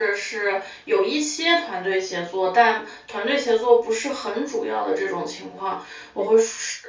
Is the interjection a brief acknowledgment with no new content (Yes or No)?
Yes